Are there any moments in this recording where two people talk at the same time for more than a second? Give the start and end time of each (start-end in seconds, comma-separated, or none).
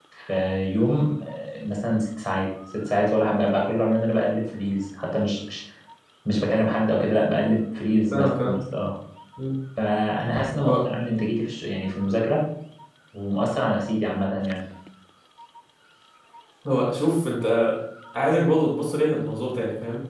none